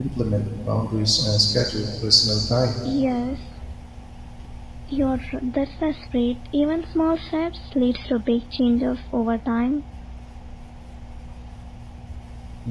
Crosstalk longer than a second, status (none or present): none